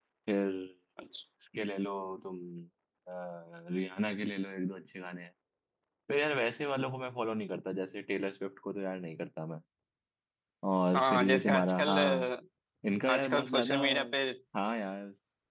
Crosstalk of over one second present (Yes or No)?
Yes